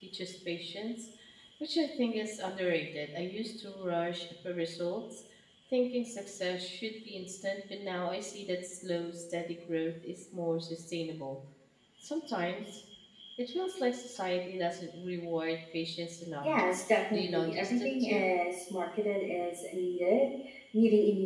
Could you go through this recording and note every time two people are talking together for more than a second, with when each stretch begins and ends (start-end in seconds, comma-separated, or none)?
17.1-18.3